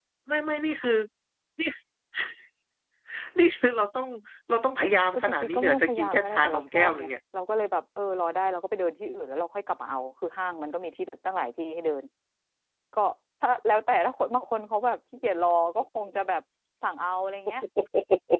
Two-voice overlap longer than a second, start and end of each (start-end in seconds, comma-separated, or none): 5.1-7.1